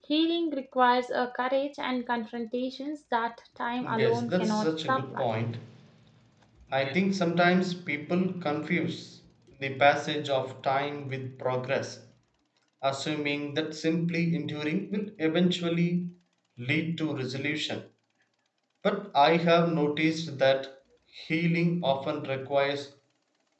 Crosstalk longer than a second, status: present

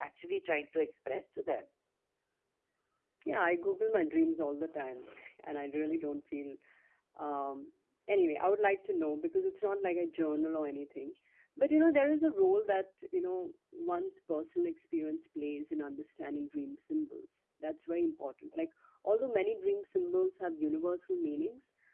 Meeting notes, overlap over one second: none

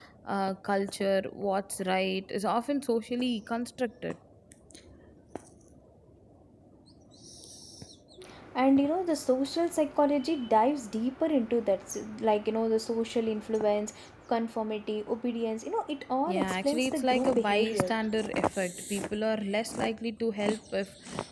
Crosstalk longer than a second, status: present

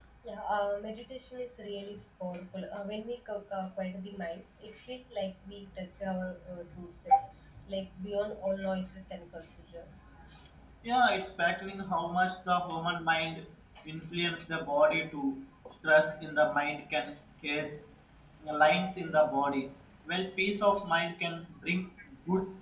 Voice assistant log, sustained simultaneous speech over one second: none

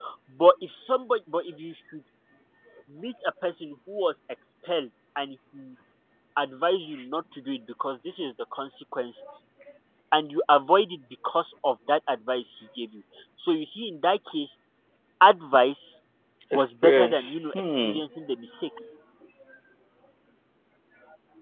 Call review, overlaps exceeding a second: present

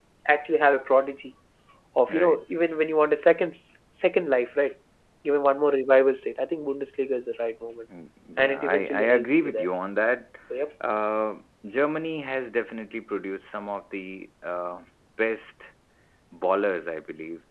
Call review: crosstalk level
present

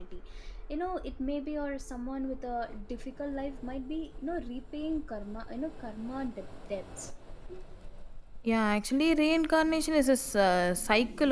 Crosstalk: none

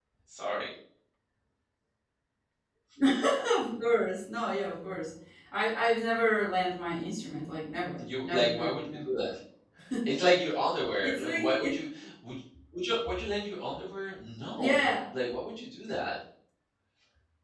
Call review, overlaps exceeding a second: present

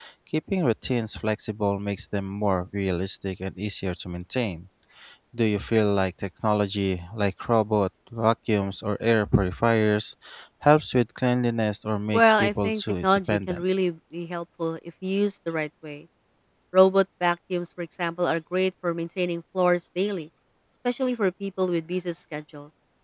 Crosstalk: present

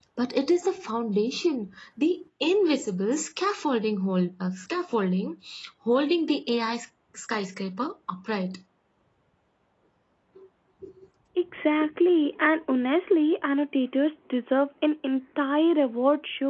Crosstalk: none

